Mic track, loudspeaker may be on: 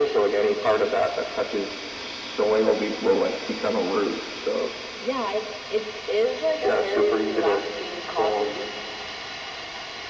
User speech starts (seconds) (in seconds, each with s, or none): none